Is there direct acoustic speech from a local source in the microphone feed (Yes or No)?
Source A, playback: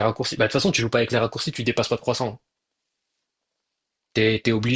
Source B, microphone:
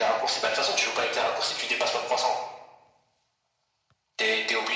No